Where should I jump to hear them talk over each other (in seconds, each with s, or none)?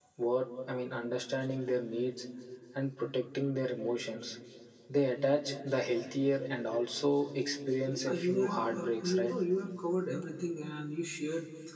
7.9 s